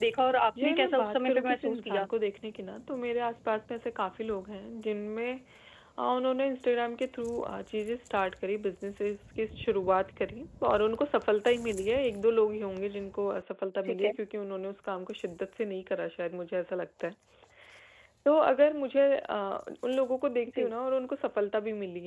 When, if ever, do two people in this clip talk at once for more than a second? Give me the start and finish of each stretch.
0.6-2.0

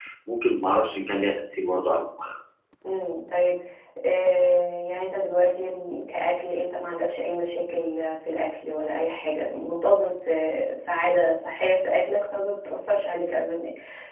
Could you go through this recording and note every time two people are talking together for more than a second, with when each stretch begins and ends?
none

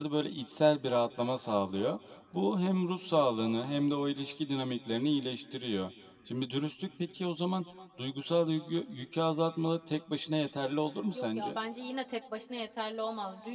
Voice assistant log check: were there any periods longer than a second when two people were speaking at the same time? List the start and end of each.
none

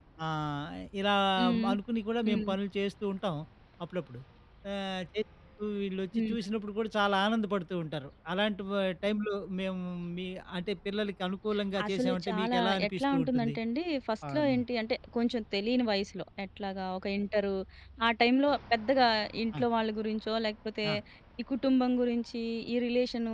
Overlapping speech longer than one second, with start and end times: 11.9-13.6

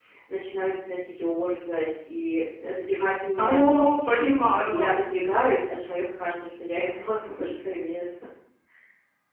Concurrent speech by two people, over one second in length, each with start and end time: none

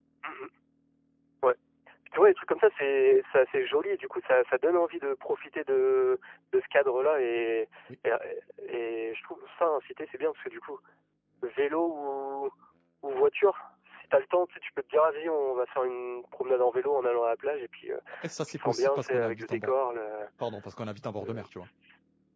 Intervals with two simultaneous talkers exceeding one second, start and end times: 18.5-19.7

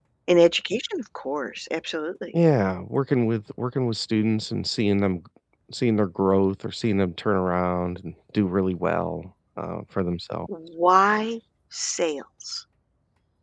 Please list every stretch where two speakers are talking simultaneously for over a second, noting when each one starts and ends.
none

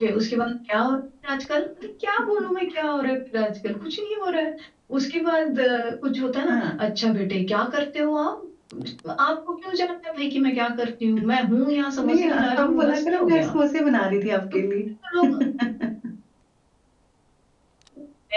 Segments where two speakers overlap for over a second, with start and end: 12.0-13.5

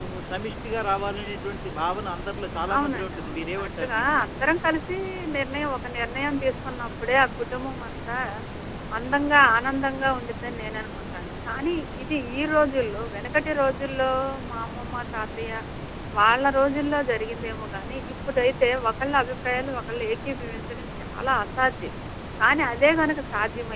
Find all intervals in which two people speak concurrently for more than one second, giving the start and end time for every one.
2.8-4.5

